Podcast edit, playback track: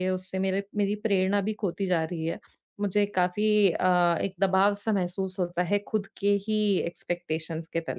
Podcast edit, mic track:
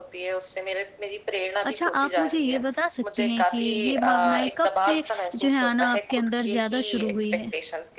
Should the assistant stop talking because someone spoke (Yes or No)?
Yes